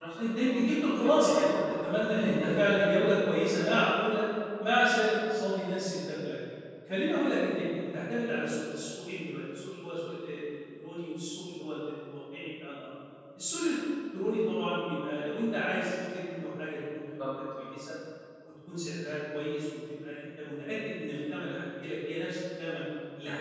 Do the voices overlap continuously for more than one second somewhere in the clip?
Yes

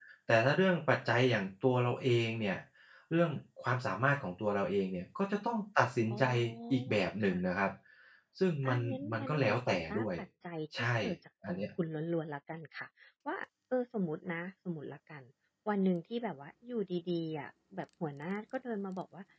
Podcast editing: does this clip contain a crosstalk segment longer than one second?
Yes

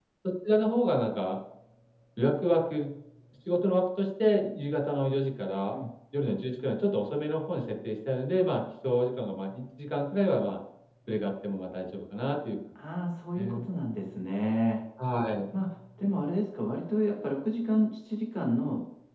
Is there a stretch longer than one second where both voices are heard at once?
No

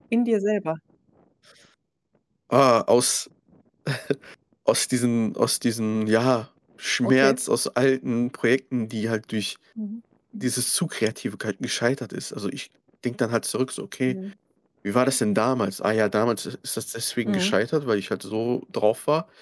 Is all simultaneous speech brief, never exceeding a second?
Yes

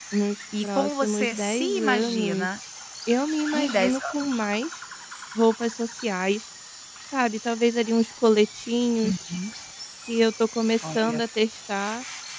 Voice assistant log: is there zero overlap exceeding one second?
No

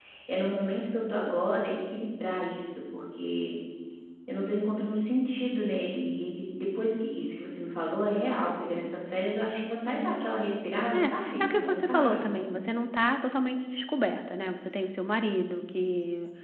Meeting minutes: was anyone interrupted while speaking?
Yes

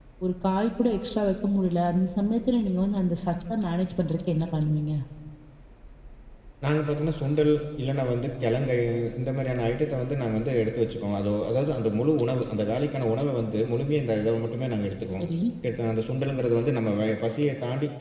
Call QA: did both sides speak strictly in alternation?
Yes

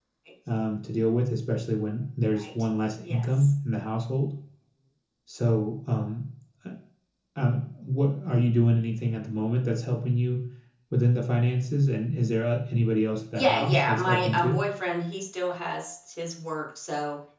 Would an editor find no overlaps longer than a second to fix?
No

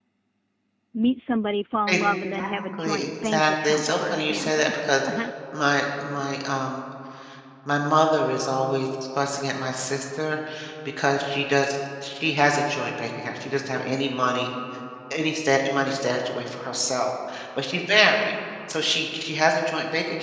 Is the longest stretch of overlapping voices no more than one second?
No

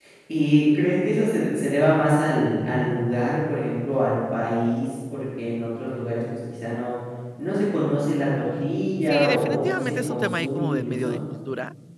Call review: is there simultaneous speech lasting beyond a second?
Yes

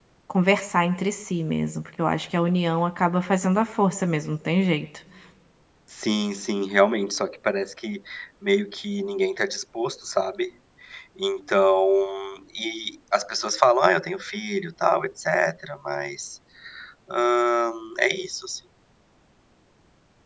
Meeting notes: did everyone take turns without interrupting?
Yes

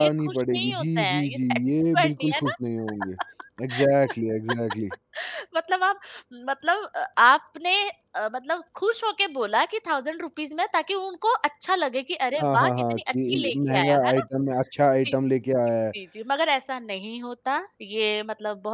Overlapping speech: Yes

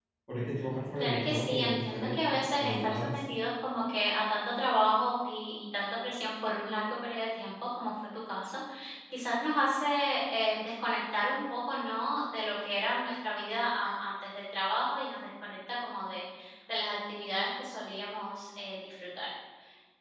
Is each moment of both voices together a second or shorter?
No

